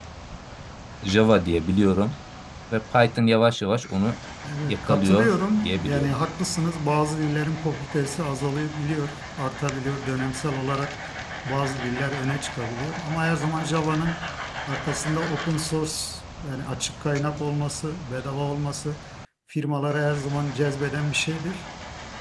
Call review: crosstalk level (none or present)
present